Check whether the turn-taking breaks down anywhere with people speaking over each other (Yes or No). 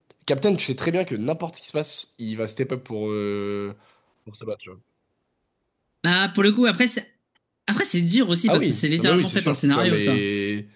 Yes